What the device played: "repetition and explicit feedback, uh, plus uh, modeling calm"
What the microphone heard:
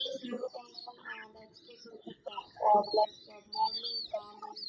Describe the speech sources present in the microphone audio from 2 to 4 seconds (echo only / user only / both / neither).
echo only